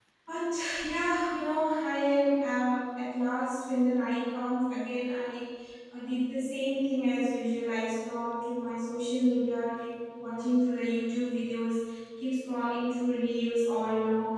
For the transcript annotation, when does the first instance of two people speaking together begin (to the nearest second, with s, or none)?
none